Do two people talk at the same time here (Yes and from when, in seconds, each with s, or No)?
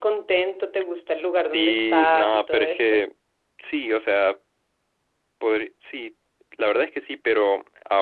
Yes, from 1.5 s